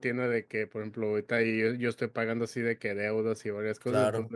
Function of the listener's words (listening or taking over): listening